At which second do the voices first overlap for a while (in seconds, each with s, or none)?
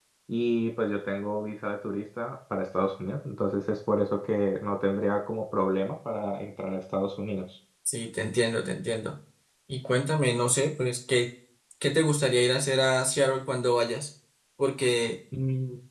none